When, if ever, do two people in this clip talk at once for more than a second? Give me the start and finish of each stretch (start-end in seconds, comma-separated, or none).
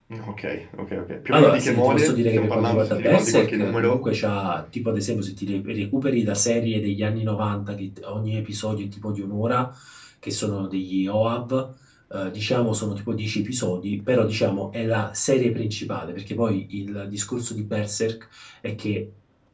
1.3-4.0